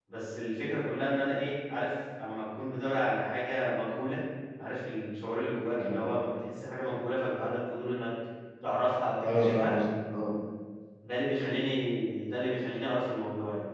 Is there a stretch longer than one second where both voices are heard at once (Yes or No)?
No